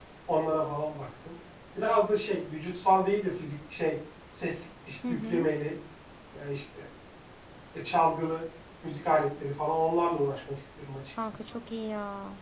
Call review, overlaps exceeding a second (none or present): none